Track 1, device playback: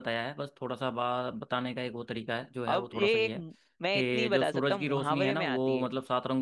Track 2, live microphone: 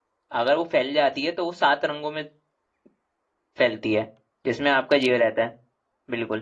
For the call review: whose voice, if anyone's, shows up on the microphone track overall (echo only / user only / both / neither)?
user only